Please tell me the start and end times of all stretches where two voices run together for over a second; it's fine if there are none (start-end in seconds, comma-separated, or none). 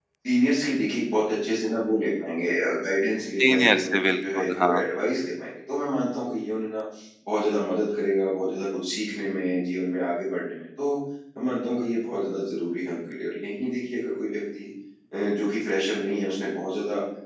3.4-4.9